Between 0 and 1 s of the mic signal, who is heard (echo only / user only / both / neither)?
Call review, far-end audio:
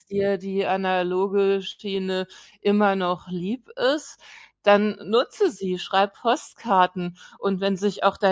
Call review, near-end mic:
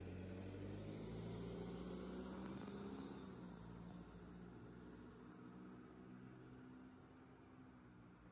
neither